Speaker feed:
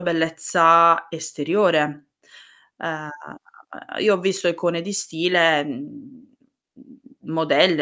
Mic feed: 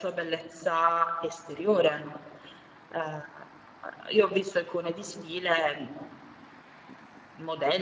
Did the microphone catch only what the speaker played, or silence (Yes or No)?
Yes